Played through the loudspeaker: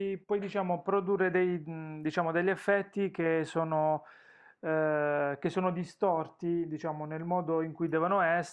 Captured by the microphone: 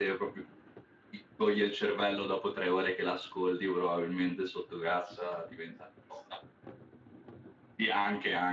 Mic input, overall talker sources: user only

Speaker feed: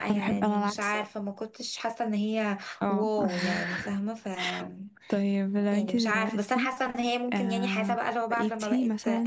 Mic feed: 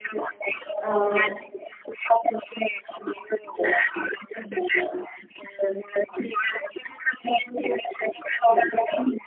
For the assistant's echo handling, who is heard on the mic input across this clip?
both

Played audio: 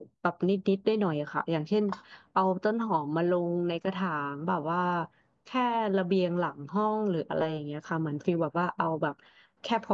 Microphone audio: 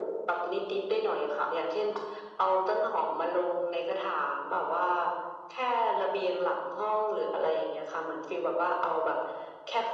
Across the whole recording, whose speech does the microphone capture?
echo only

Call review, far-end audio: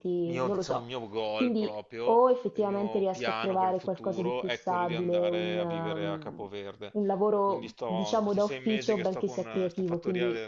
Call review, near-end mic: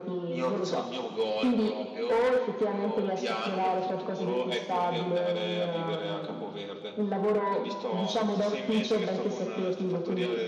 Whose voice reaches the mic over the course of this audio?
echo only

